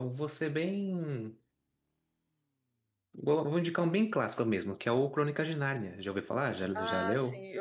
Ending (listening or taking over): taking over